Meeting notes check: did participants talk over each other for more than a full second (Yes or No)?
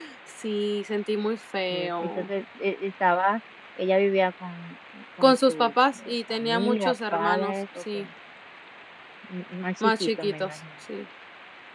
Yes